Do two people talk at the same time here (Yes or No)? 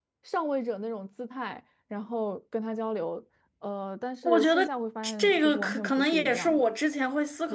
Yes